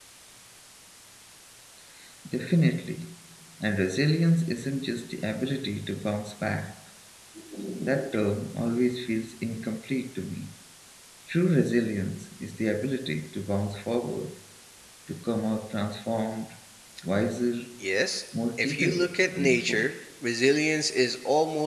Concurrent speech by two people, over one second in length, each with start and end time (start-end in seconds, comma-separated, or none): 18.6-19.9